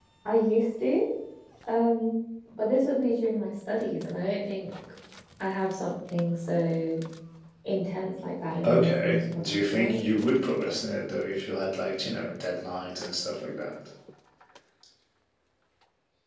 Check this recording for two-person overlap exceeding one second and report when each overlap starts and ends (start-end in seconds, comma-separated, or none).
8.6-10.0